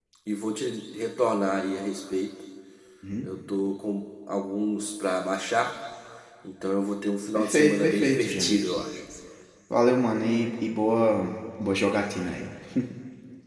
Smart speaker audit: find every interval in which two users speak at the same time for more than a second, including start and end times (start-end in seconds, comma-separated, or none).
7.3-8.6